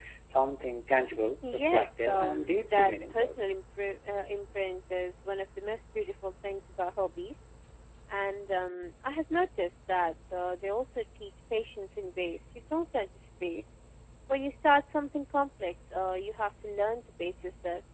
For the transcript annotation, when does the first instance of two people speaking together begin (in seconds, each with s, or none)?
1.4 s